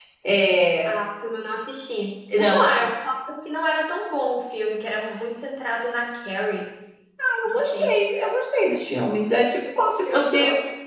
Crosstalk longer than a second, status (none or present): none